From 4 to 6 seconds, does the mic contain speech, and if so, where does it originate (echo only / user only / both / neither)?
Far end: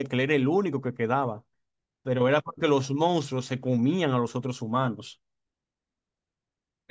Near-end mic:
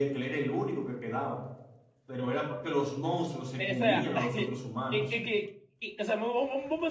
both